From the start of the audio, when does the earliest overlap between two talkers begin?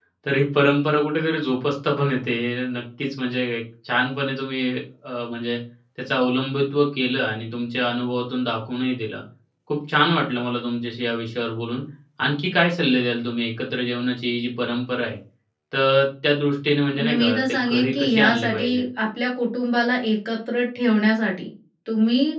16.9 s

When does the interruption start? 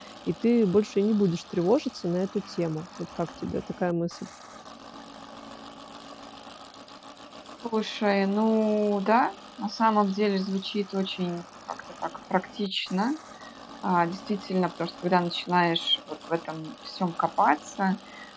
none

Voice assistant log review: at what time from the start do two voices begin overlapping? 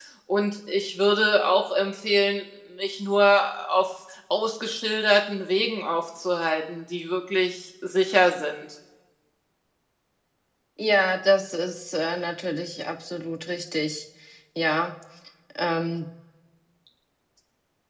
none

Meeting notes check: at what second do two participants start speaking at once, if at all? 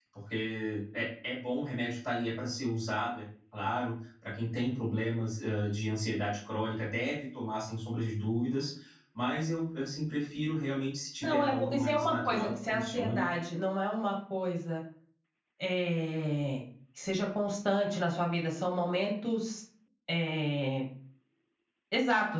11.2 s

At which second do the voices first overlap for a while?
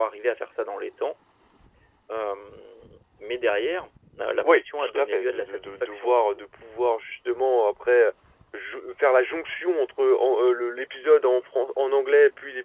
4.4 s

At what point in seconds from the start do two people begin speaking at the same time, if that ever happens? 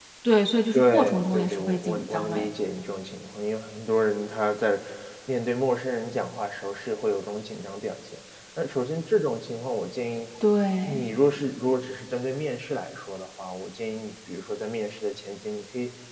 0.7 s

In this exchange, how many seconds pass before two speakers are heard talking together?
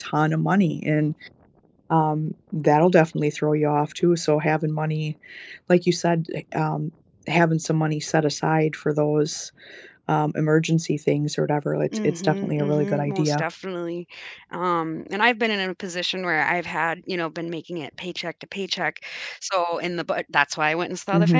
11.9 s

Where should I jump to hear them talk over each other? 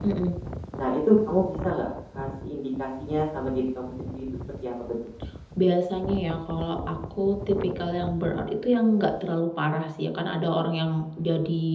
none

